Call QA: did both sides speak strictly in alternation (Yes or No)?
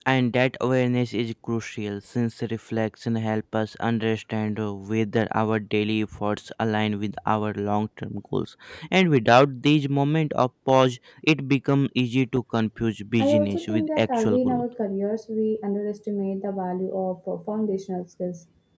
No